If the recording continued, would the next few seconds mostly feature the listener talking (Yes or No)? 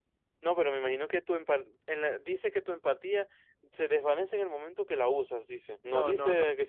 Yes